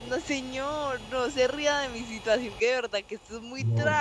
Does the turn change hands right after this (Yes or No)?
Yes